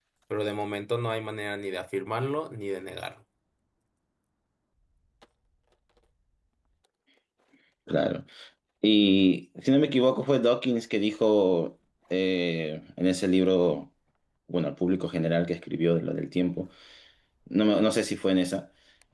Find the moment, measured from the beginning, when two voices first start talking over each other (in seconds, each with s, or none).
none